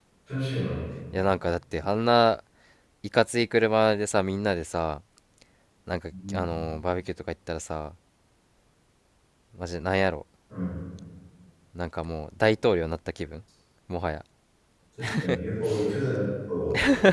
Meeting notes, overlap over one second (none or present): none